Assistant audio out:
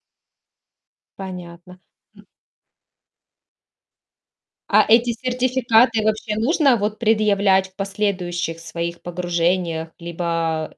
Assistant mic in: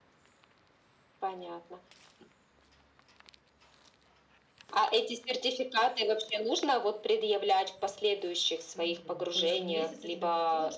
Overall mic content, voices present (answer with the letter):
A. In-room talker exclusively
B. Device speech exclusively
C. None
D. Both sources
D